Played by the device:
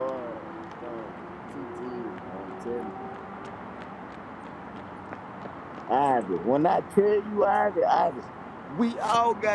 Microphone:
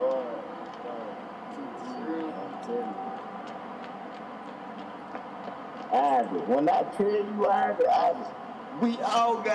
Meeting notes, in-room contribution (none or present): present